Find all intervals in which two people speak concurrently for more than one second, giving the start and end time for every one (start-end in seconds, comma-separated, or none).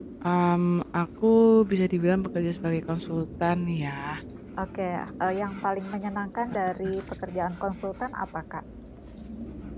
none